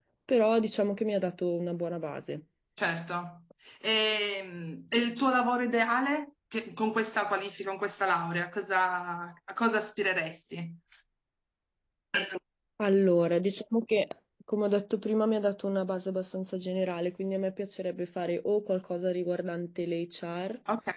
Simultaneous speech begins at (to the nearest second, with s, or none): none